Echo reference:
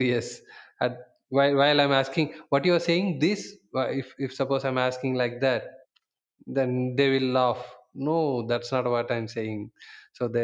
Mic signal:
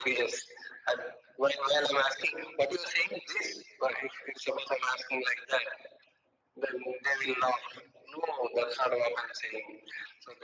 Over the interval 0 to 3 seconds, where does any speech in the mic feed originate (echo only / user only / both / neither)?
echo only